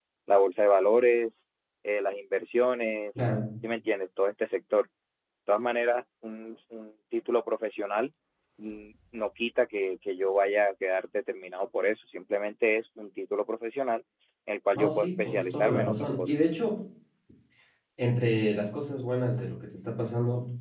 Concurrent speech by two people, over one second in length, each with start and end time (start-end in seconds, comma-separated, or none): 14.8-16.3